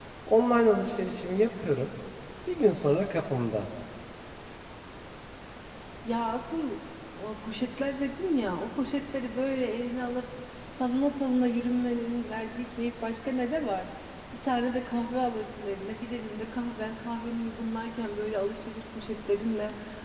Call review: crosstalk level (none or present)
none